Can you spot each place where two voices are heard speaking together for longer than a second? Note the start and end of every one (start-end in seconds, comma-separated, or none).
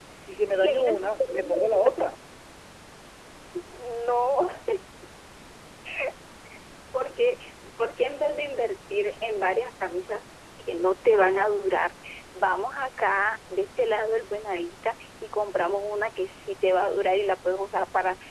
0.5-2.0